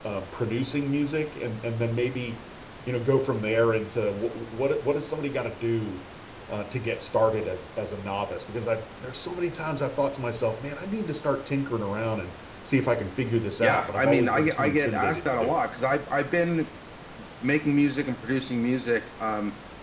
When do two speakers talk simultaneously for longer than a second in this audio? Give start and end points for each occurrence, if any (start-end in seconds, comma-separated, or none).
13.6-15.6